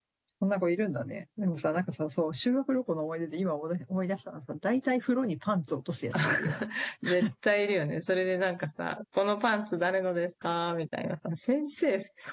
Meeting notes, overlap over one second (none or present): none